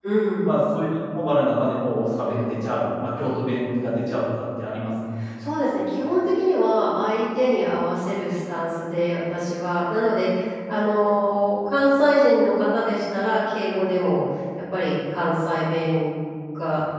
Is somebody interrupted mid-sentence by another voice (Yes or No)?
No